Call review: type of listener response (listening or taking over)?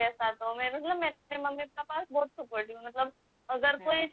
listening